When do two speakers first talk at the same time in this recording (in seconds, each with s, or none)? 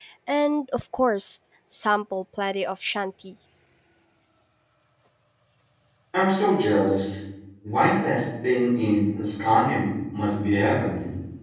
none